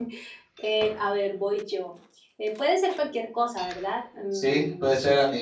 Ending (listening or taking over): taking over